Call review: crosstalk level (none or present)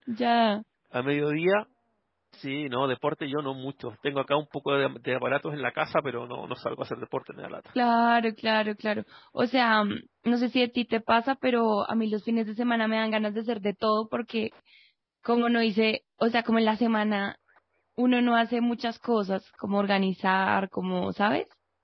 none